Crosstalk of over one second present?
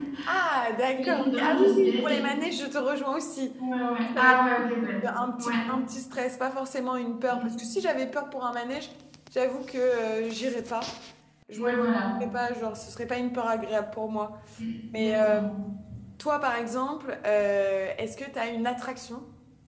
Yes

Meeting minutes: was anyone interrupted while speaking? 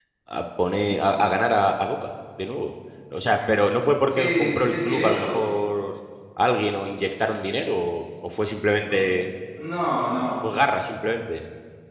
Yes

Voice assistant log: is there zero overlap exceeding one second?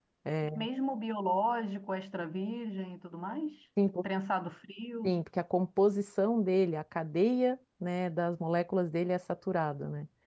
Yes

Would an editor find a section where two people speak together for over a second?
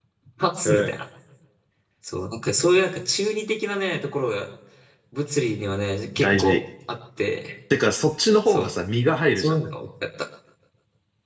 No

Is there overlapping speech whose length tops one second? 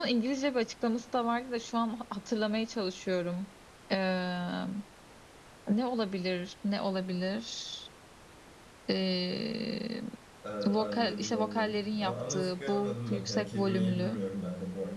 Yes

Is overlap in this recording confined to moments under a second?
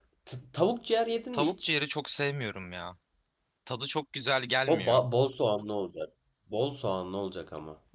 Yes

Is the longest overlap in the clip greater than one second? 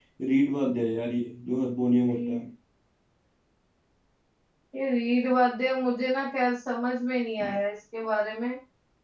No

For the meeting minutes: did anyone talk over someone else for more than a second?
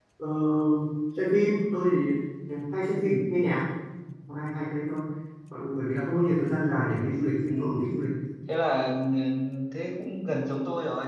No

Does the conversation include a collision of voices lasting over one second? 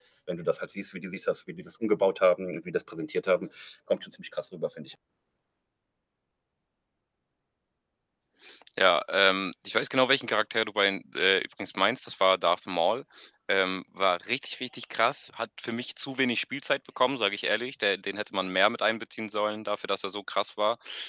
No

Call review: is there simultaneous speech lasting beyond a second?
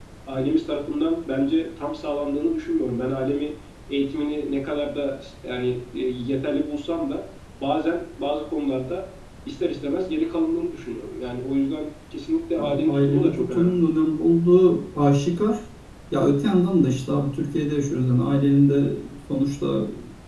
Yes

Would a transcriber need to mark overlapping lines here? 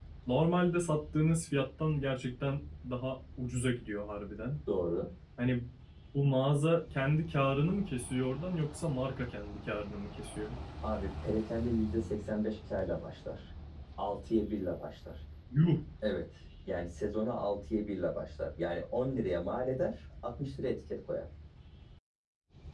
No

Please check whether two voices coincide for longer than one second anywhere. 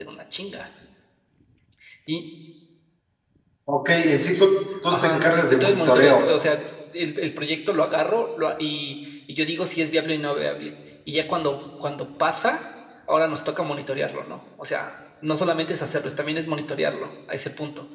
Yes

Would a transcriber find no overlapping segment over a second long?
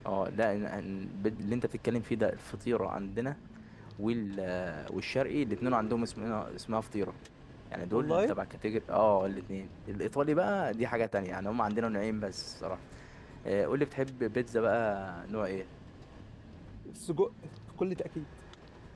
Yes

